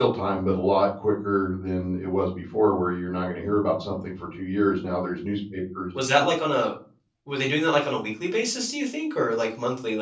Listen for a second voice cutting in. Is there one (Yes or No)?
No